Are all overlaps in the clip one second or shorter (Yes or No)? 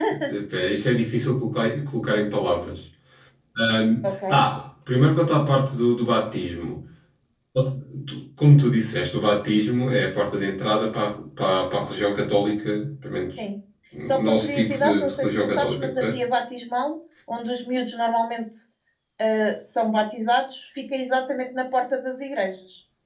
No